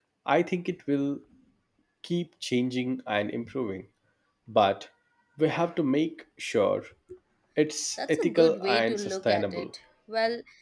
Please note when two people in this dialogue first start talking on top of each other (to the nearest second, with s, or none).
8 s